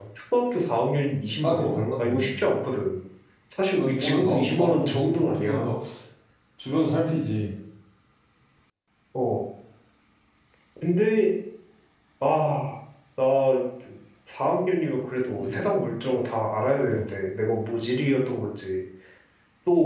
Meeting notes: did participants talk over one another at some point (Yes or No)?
Yes